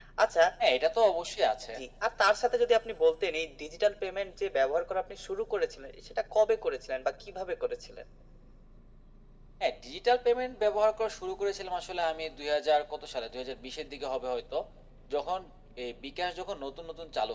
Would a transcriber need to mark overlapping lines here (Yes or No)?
No